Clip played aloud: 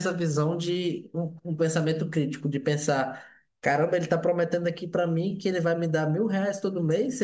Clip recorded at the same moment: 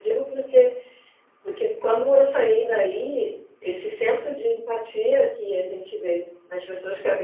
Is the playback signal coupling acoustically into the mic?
No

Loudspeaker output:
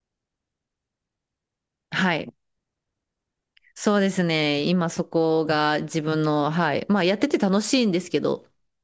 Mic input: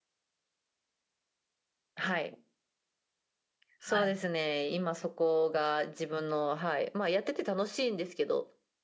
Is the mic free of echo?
No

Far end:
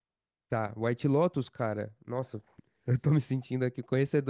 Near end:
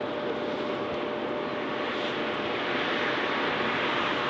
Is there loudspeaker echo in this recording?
No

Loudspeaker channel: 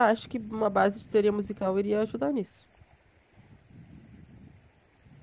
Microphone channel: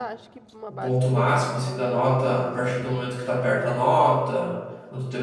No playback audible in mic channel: No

